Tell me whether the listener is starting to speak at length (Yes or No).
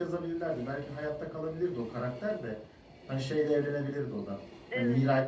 No